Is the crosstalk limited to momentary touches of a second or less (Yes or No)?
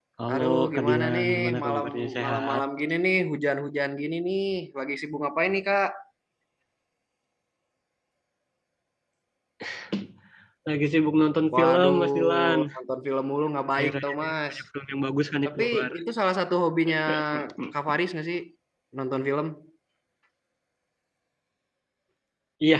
No